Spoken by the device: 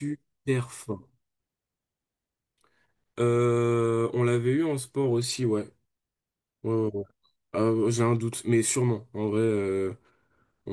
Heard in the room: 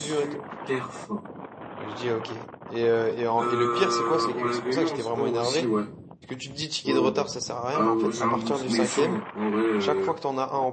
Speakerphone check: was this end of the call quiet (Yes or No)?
No